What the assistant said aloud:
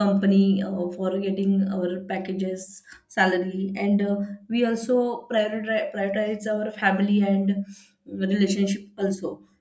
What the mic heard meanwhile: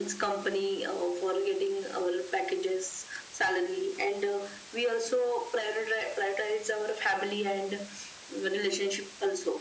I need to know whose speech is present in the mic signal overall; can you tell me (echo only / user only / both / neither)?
echo only